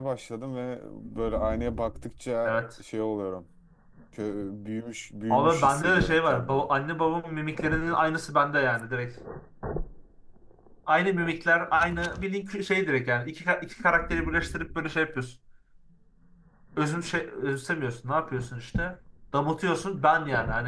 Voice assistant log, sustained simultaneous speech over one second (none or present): present